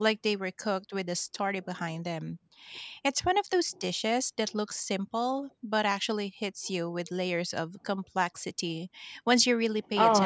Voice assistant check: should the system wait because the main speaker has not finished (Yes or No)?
No